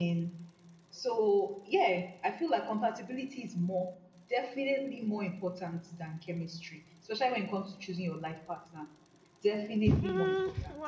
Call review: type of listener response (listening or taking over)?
taking over